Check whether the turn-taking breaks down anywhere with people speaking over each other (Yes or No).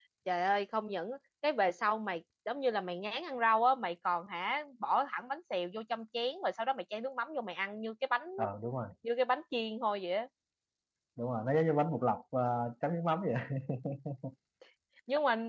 No